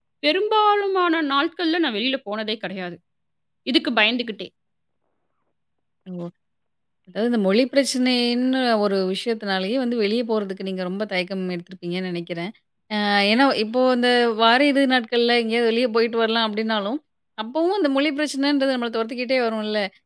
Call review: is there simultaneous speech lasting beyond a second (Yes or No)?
No